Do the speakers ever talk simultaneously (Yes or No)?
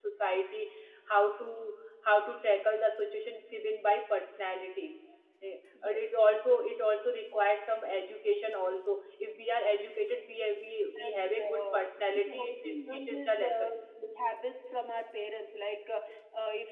Yes